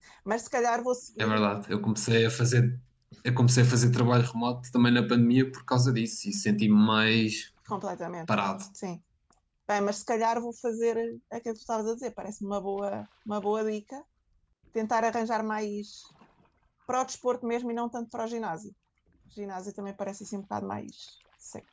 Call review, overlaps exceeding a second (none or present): none